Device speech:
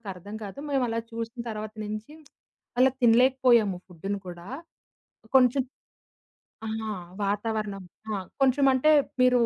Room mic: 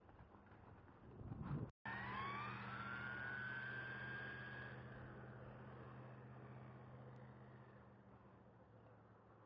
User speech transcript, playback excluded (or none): none